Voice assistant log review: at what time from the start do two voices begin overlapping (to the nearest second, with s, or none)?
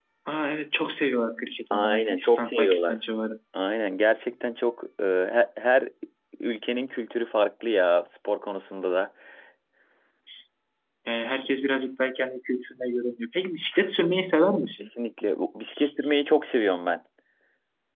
2 s